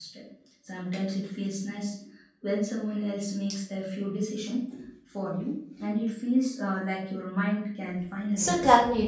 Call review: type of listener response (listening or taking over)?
taking over